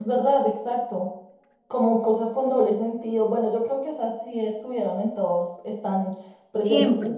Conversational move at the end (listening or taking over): listening